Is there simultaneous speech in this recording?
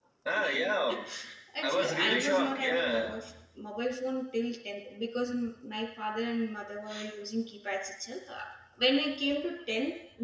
Yes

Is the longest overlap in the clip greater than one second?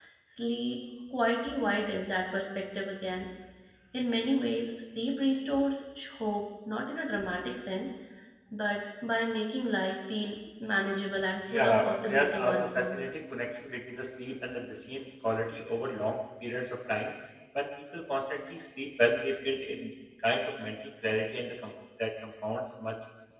Yes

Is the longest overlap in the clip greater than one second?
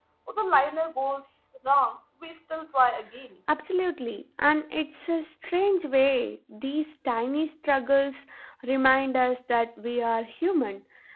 No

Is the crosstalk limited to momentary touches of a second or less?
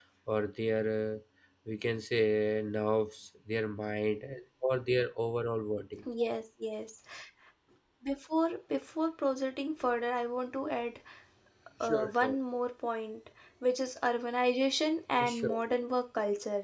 Yes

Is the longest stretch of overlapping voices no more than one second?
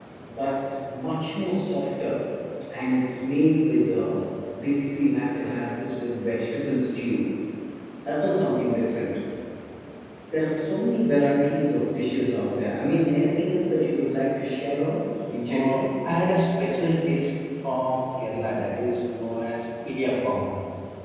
Yes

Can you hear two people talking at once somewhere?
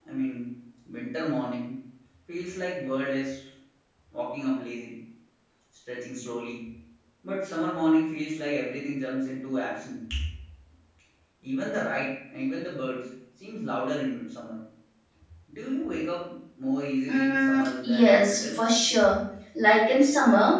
Yes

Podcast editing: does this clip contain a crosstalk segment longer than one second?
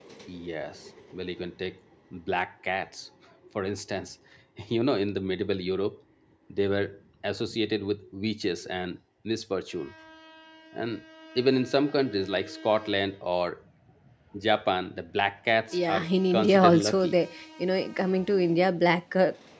Yes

